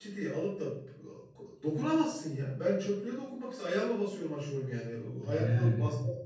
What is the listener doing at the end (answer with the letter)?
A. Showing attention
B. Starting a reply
A